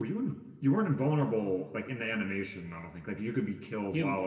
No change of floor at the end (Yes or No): No